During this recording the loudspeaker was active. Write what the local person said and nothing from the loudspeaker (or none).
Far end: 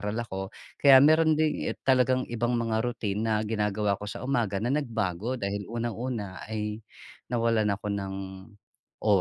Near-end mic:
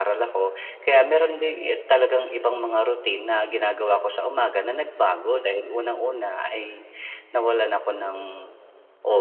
none